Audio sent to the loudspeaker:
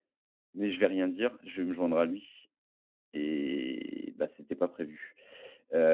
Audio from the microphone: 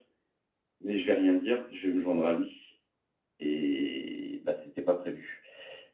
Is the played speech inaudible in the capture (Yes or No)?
No